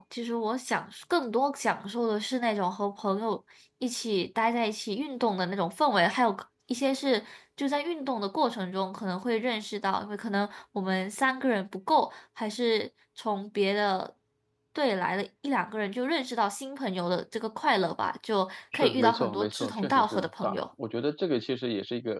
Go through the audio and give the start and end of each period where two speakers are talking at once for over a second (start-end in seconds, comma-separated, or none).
18.7-20.6